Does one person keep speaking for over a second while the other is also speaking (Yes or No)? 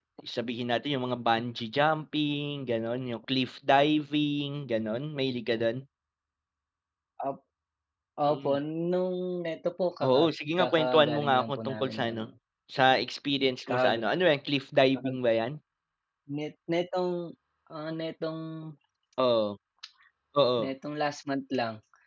Yes